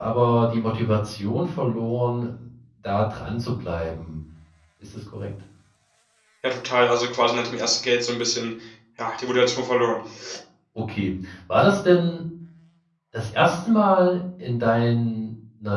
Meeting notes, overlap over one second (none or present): none